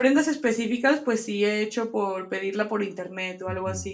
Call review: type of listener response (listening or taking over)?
taking over